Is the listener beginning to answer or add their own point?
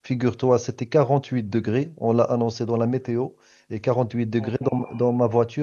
No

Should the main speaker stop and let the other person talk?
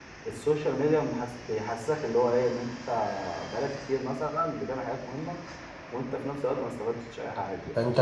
Yes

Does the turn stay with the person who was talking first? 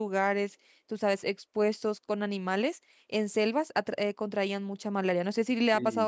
No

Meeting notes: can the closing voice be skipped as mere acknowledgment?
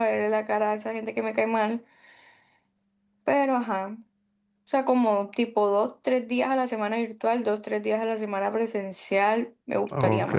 No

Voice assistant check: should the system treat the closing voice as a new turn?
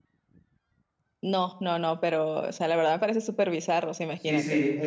Yes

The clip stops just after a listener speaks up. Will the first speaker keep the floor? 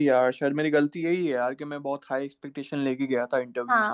No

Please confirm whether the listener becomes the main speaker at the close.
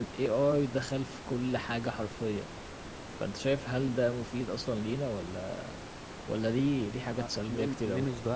Yes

